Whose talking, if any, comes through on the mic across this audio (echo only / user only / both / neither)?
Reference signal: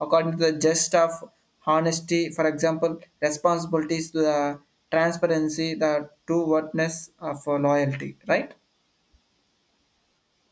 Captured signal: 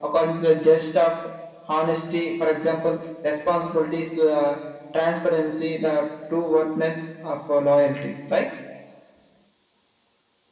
echo only